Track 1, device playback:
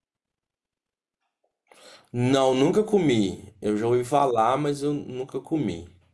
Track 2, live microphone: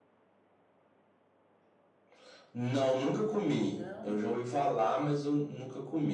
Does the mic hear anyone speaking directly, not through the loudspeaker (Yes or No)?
Yes